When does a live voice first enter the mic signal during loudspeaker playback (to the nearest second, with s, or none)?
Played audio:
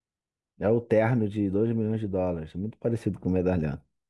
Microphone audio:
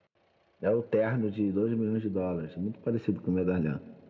none